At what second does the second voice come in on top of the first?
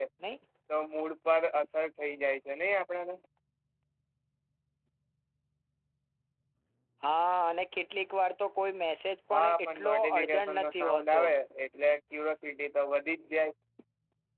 9 s

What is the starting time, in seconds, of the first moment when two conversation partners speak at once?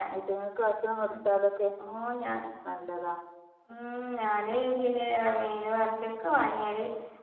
none

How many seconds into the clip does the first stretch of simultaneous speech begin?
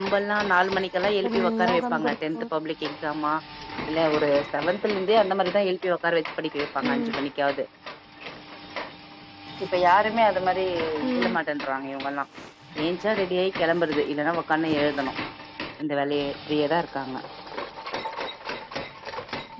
1 s

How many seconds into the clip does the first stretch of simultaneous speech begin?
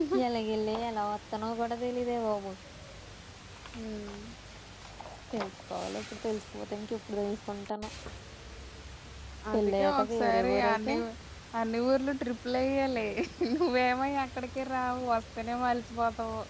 10 s

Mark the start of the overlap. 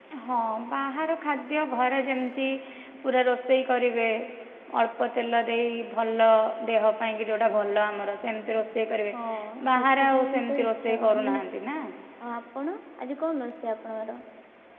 10 s

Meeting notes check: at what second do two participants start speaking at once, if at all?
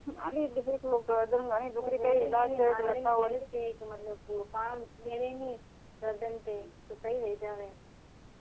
2 s

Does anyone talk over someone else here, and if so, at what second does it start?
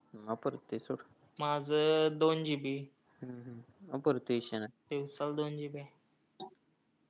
none

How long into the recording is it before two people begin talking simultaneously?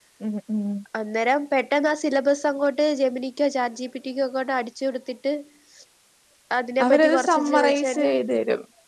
7 s

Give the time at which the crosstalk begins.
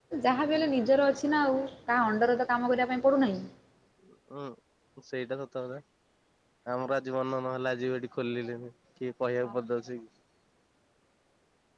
none

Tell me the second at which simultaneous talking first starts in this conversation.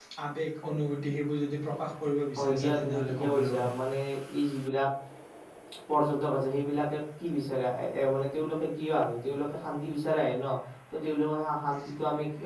2 s

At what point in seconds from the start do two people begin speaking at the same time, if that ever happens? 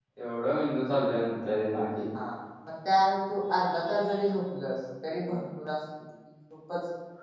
none

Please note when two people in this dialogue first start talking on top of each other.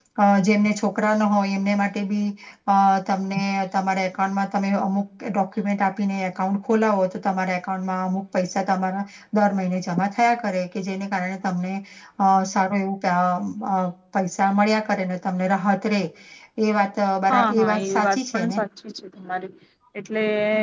17 s

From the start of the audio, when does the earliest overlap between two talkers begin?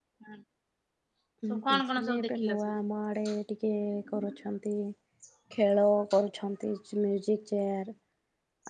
2 s

